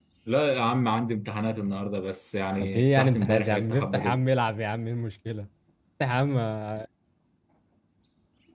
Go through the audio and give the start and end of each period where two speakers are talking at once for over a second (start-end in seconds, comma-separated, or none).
2.6-4.2